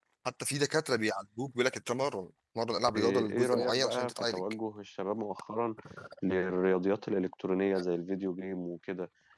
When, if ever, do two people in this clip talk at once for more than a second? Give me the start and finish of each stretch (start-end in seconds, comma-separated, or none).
3.0-4.4